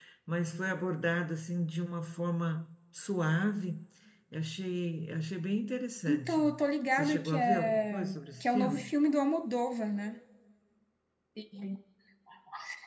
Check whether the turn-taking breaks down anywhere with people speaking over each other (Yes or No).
Yes